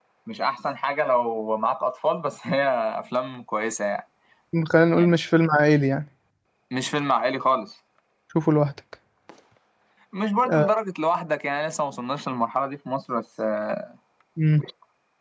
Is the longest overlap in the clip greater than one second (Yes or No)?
No